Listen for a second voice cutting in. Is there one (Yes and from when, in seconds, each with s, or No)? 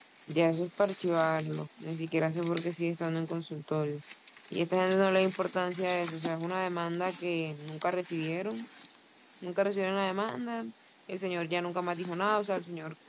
No